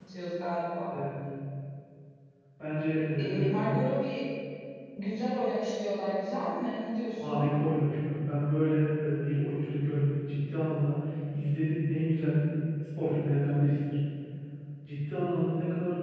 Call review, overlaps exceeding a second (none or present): none